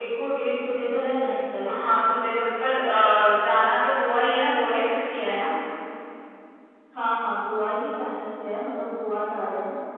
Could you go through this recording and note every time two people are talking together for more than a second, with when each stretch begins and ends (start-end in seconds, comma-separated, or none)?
none